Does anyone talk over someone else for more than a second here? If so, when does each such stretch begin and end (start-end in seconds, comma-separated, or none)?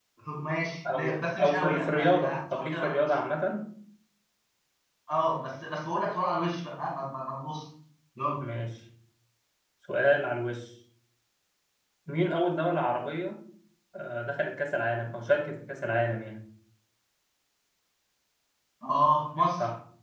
0.9-3.1